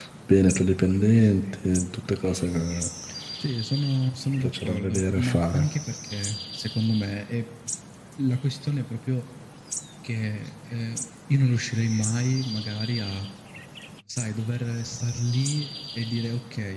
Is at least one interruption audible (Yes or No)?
Yes